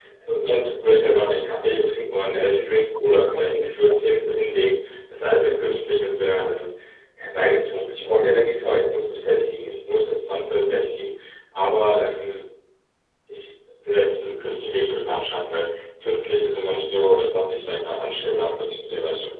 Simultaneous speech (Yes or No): Yes